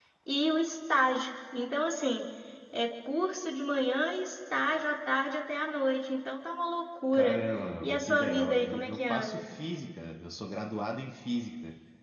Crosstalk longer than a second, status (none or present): present